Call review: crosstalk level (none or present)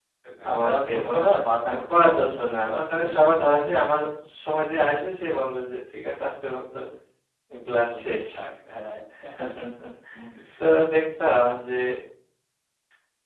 present